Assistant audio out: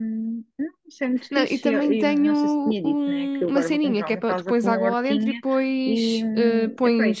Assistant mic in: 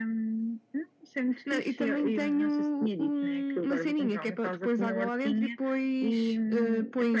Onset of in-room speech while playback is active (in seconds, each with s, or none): none